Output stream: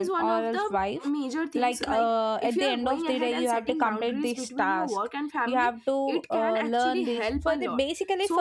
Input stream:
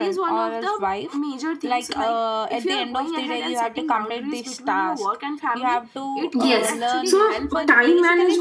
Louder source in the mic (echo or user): user